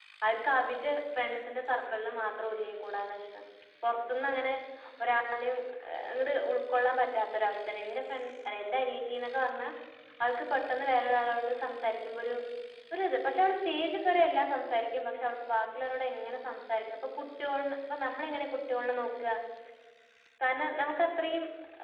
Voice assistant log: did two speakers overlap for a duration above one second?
No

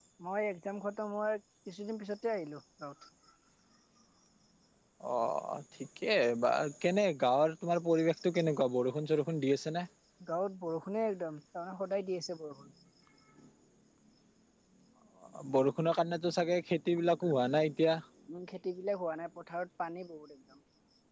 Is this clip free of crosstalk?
Yes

